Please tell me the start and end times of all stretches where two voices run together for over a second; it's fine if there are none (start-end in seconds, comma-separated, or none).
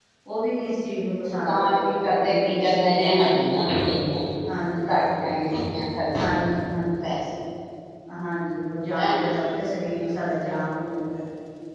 1.4-3.3